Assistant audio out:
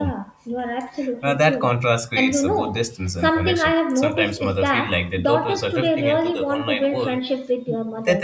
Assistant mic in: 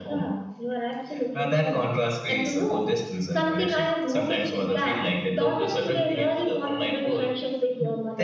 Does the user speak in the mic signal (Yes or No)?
No